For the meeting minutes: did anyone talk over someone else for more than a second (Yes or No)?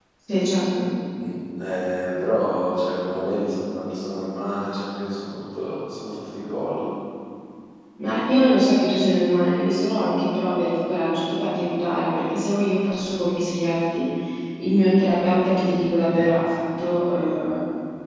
No